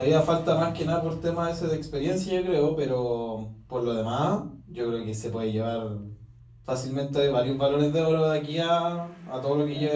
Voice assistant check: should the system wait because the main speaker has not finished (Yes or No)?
No